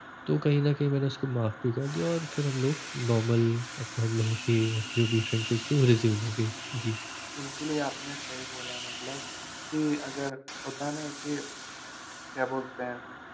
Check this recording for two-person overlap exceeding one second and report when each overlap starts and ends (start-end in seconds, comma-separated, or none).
none